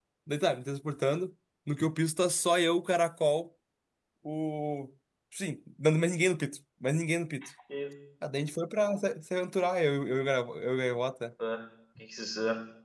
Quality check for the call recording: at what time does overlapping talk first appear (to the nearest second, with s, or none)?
none